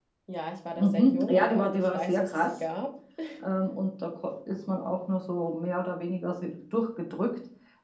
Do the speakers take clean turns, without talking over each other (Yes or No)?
No